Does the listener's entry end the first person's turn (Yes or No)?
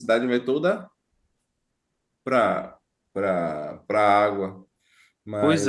Yes